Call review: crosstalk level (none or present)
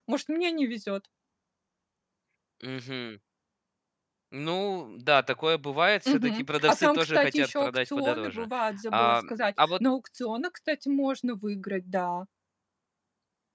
present